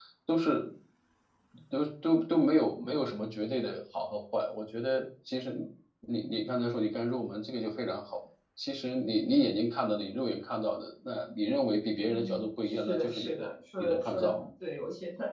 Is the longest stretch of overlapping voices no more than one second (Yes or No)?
No